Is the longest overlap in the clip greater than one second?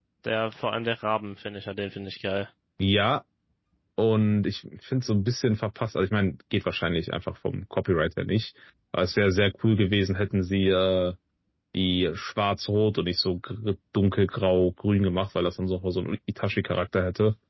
No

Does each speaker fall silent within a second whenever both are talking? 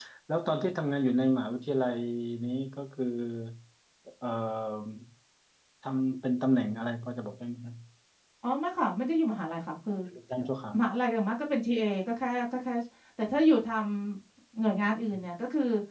Yes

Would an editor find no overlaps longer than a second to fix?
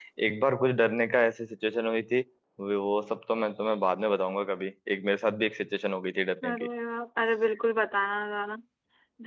Yes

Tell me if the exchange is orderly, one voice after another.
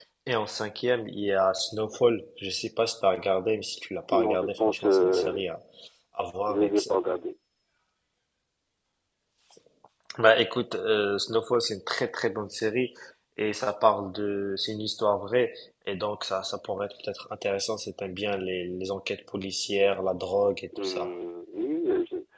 No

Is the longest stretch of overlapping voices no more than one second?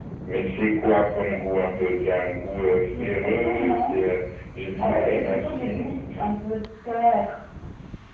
No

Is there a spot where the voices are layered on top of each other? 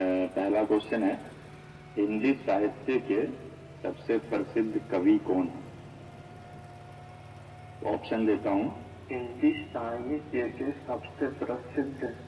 No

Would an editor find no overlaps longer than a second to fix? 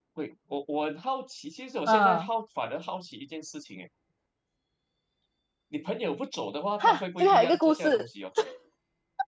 No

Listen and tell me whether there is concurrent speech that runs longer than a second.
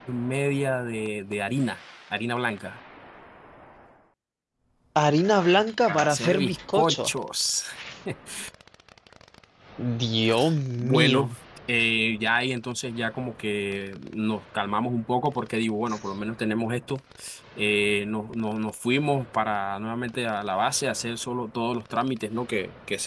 Yes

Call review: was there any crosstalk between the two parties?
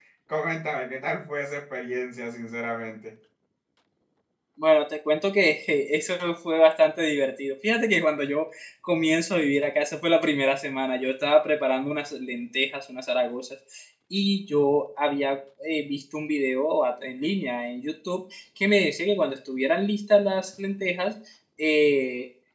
No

